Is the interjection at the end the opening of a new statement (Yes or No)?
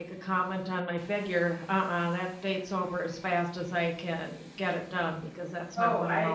Yes